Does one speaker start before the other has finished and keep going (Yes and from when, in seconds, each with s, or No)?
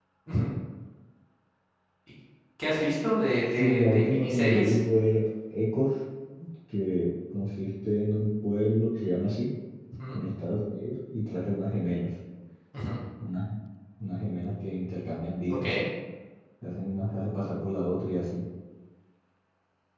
Yes, from 3.5 s